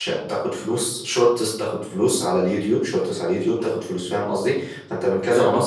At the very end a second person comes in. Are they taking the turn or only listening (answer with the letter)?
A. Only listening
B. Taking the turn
A